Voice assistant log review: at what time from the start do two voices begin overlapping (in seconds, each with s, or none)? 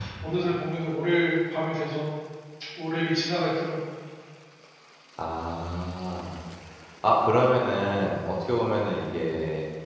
none